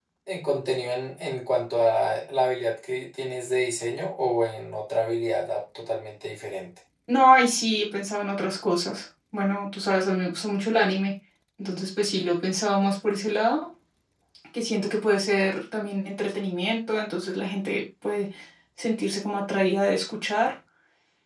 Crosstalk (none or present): none